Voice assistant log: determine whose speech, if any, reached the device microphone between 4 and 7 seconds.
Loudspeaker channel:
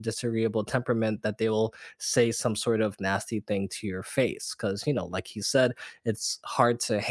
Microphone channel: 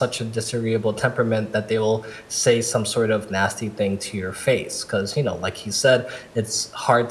echo only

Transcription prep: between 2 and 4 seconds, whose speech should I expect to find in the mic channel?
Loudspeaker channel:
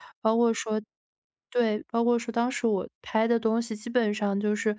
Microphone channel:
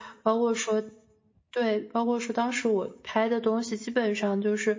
echo only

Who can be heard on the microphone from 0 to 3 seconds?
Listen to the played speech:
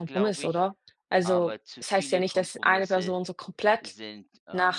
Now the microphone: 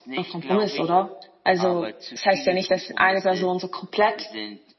echo only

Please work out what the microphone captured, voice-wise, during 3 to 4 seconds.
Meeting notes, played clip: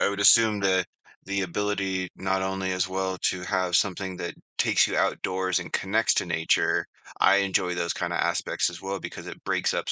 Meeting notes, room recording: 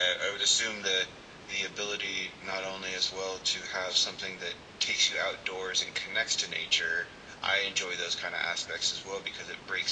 echo only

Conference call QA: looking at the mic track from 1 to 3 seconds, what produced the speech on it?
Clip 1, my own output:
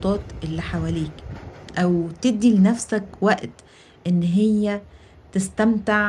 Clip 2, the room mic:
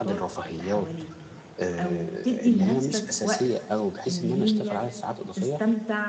both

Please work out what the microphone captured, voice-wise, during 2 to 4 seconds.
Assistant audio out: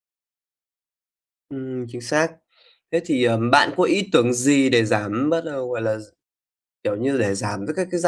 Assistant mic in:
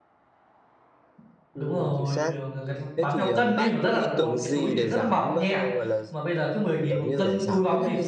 both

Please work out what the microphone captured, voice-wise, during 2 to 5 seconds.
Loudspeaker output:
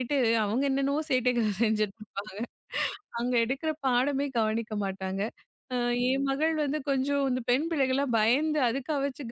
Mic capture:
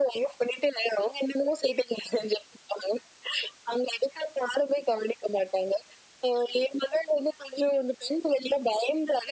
echo only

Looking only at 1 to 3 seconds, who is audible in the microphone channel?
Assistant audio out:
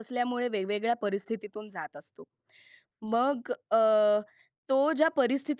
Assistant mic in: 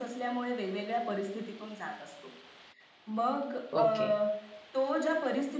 echo only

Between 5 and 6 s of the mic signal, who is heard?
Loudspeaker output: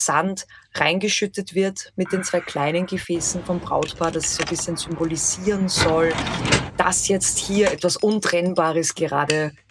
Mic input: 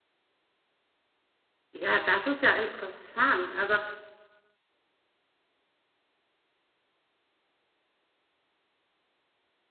neither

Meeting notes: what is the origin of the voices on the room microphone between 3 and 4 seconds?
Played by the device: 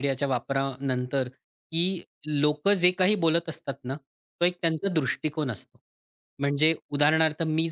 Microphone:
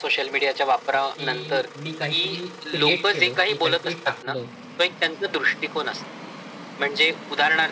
both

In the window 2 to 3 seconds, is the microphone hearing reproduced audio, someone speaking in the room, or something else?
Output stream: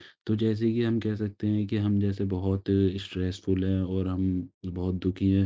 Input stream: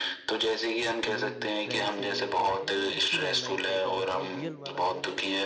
both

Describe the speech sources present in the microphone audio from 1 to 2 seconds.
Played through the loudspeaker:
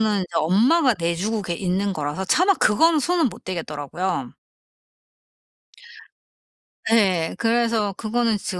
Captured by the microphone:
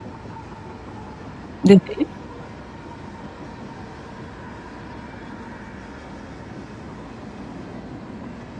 user only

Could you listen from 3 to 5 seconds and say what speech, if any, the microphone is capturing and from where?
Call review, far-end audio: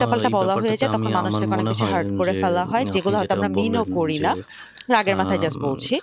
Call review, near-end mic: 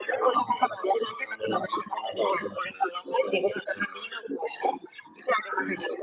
echo only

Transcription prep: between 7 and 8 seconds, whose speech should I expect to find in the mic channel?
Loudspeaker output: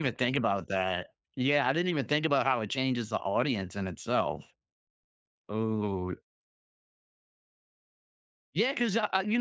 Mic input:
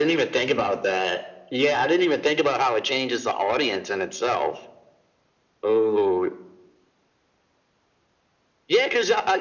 neither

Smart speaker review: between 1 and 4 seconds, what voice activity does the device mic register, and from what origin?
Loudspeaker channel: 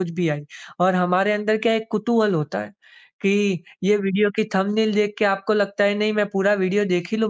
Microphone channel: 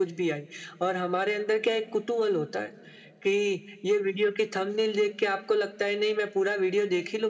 echo only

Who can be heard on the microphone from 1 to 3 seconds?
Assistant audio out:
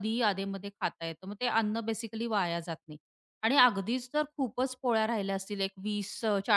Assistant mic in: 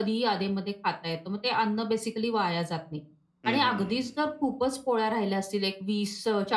echo only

